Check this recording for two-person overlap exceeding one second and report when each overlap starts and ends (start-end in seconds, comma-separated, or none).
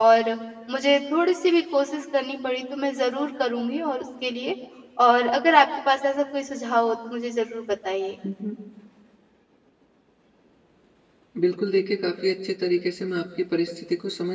none